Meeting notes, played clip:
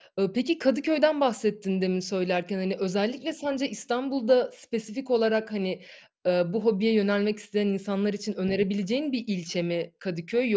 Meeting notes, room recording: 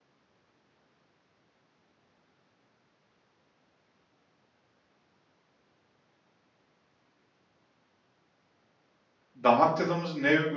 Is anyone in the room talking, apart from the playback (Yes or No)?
Yes